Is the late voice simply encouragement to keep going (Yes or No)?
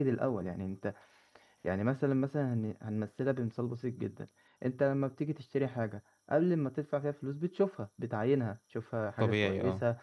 Yes